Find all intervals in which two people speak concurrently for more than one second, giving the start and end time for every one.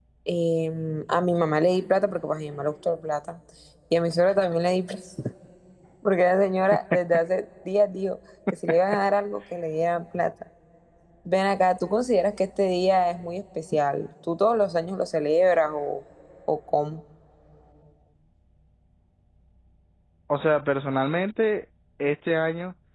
none

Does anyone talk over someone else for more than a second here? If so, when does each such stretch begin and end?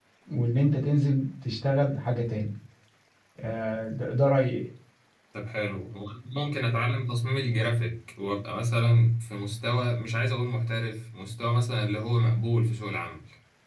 none

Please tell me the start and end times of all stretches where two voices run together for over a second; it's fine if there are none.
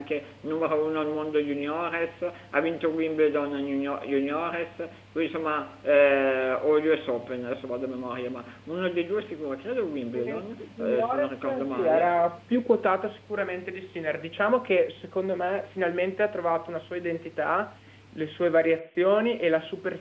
10.8-12.2

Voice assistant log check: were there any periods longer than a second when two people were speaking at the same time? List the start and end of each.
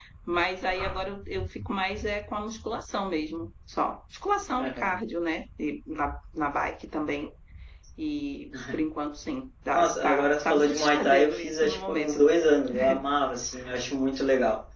9.7-12.2

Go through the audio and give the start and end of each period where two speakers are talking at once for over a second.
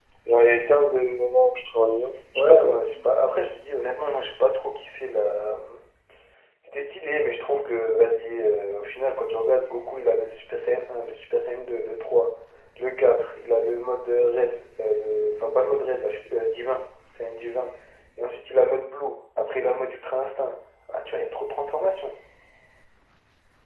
none

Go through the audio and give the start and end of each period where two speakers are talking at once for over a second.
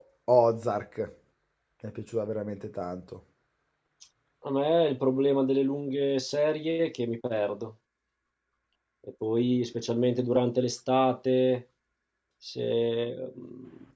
none

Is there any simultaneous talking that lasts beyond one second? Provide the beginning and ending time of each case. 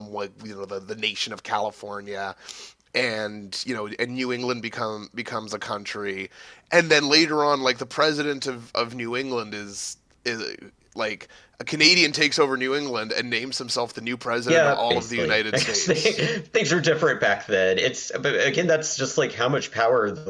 14.5-16.3

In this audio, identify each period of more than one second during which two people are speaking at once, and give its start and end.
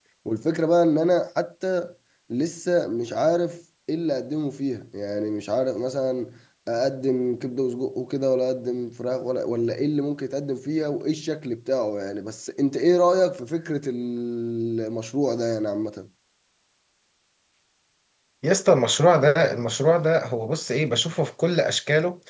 none

